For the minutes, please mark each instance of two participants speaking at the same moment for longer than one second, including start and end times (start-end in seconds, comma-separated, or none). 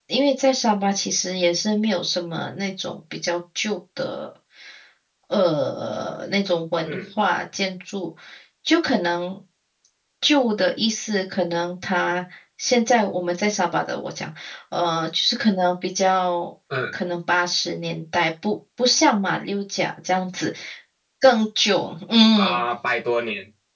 none